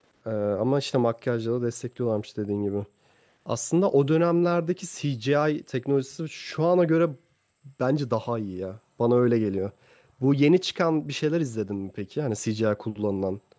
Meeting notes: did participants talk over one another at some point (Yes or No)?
No